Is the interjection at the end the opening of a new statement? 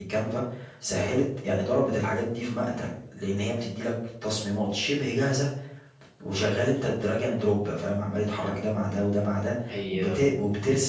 No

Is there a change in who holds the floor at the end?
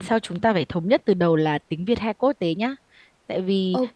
No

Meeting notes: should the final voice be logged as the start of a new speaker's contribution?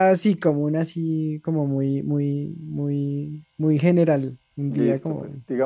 Yes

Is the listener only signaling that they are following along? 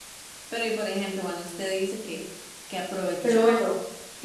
Yes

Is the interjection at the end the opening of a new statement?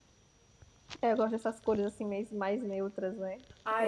Yes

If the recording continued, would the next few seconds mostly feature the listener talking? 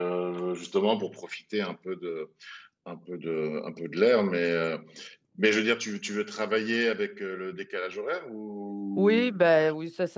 Yes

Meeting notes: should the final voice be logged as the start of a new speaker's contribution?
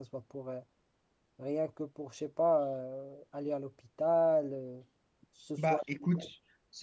Yes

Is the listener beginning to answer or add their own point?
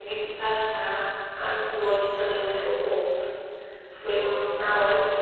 No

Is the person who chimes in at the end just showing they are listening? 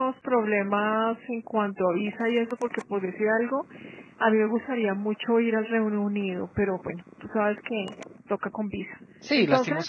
No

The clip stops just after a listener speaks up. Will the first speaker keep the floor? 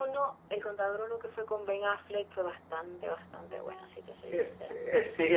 No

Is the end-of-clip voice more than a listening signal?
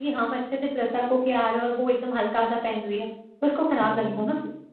Yes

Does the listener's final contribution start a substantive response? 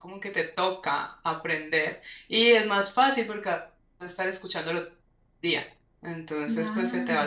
No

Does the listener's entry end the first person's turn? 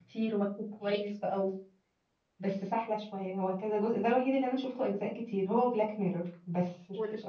Yes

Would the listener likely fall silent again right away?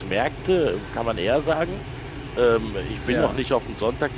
Yes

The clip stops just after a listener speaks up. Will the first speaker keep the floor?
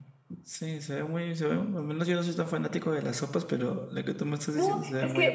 No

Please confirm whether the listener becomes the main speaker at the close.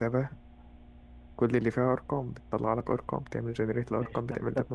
Yes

